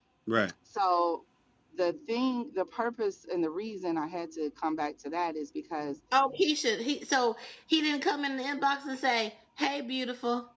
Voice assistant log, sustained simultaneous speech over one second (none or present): none